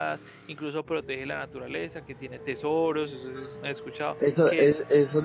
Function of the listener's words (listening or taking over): taking over